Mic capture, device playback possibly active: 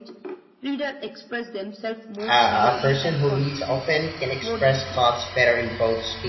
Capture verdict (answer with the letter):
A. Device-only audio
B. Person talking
B